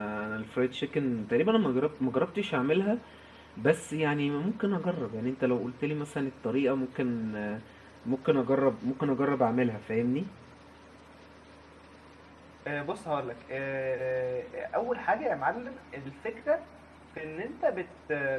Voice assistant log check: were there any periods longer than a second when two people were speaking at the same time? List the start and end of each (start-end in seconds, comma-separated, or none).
none